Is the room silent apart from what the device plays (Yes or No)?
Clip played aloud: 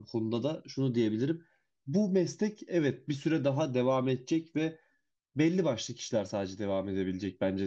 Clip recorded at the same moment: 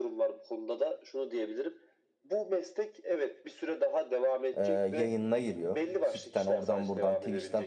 No